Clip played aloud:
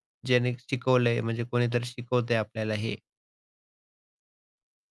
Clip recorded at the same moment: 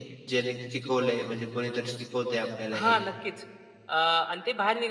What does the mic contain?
both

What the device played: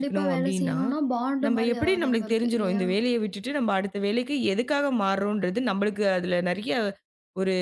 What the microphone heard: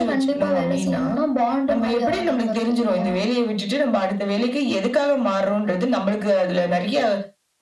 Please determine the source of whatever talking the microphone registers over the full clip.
echo only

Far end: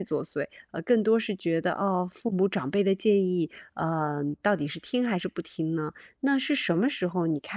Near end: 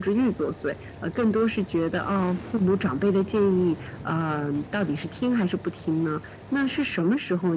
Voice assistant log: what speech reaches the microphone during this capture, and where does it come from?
echo only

